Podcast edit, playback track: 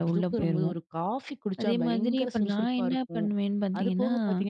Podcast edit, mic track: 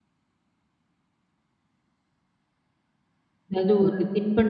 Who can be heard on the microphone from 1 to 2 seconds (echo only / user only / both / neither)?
neither